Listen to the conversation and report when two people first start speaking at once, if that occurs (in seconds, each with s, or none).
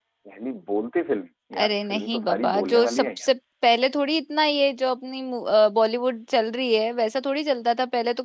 1.5 s